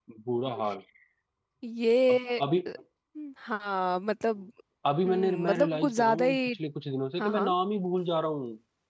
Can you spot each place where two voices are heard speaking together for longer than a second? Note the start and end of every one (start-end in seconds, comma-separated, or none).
5.0-6.5